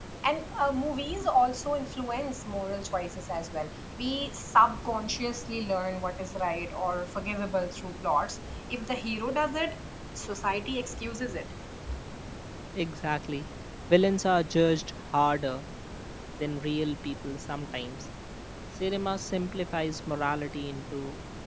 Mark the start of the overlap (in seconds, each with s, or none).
none